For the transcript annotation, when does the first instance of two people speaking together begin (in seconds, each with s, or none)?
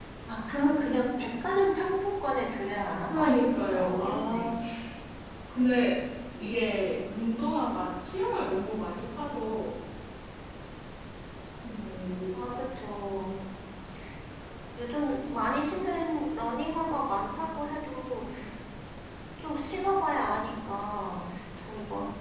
3.0 s